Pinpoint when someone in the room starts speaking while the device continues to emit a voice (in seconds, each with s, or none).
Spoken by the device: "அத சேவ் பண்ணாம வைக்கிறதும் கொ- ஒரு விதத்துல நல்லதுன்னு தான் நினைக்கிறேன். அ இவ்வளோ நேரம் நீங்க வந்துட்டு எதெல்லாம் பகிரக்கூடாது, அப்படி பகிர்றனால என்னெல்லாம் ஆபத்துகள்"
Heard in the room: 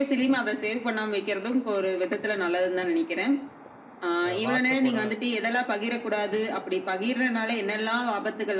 4.3 s